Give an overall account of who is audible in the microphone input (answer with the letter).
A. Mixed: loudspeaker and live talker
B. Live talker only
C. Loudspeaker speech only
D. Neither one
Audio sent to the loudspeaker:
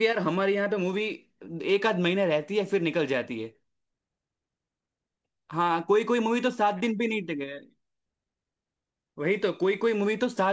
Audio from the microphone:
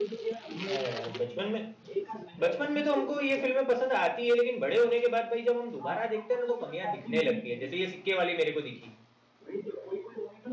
A